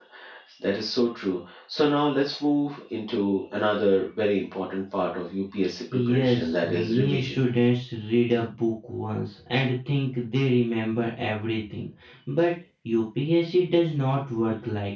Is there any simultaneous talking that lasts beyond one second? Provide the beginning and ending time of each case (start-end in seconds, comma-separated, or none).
5.9-7.4